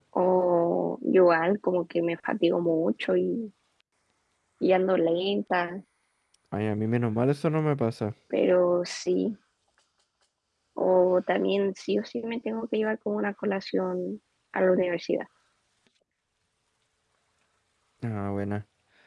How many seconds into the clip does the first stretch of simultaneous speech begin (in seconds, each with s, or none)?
none